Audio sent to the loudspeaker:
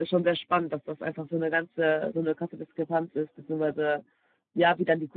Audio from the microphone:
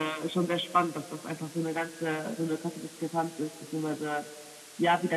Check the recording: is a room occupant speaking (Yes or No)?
No